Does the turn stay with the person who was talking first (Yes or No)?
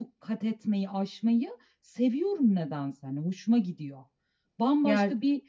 Yes